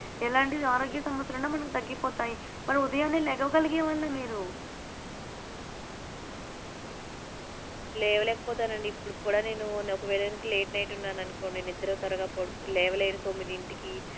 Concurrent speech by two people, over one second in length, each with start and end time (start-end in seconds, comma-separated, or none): none